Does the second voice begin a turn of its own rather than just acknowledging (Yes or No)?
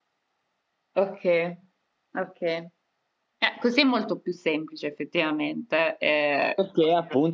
Yes